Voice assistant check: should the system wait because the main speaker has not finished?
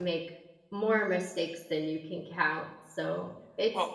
Yes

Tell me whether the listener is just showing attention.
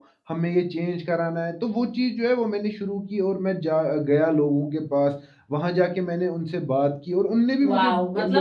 No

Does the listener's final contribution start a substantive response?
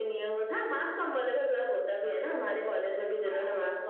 Yes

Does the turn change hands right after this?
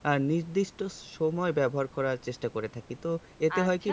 Yes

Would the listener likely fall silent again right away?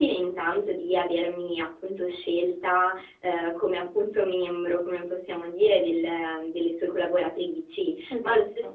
Yes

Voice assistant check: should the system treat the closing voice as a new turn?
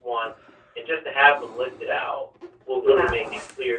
No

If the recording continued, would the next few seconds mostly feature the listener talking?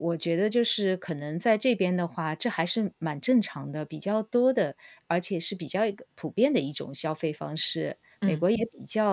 No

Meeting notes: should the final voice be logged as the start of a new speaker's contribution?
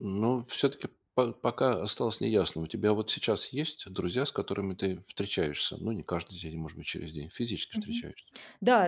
Yes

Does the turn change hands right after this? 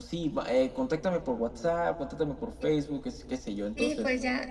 Yes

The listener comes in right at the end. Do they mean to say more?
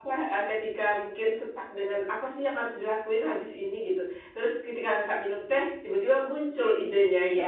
Yes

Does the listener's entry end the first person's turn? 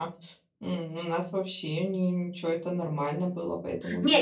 Yes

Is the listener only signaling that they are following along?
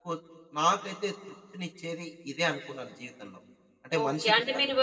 No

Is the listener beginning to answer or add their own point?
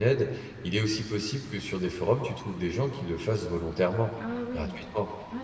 Yes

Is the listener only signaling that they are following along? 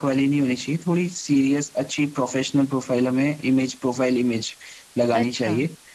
Yes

